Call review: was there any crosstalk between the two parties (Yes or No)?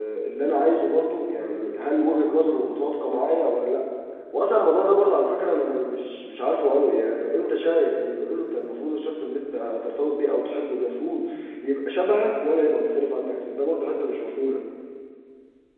No